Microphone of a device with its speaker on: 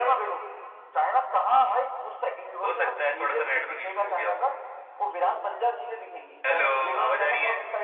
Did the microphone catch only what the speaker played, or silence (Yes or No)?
Yes